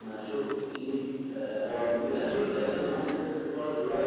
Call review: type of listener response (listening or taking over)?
taking over